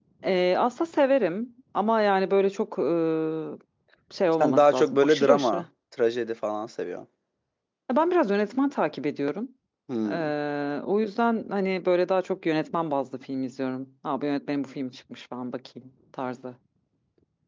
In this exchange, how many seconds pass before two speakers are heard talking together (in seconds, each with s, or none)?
4.4 s